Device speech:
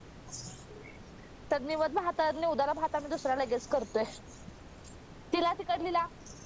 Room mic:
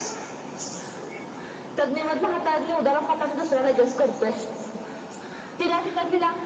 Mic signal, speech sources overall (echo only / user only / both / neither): echo only